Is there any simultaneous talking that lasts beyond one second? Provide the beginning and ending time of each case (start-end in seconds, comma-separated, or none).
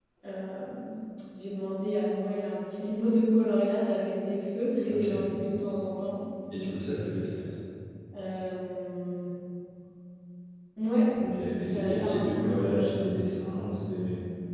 11.6-12.9